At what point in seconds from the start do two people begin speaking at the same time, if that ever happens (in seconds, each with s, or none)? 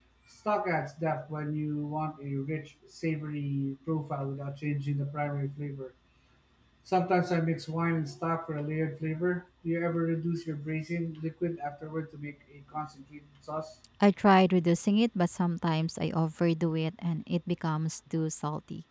none